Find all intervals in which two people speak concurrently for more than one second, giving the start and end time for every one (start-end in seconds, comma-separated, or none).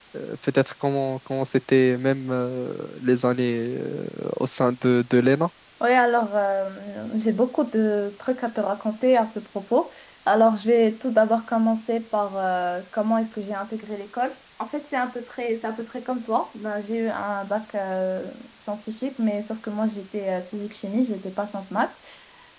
none